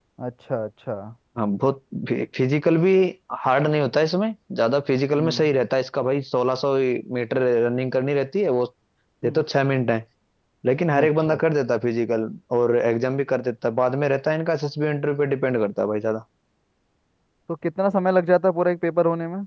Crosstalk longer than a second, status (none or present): none